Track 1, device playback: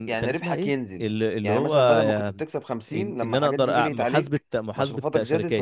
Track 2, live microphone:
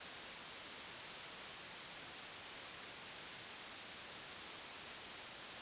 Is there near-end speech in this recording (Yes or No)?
No